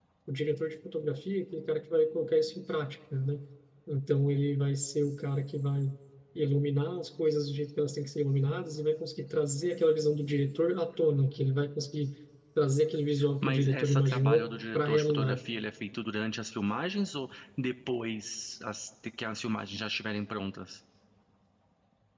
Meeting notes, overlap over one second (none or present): present